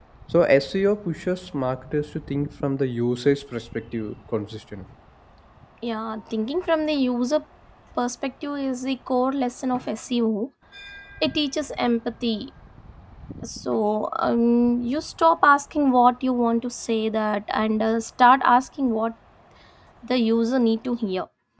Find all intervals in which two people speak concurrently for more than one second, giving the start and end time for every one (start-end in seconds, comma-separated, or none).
none